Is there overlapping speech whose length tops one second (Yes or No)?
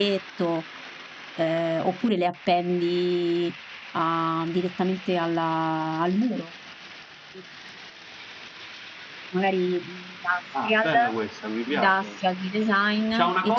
No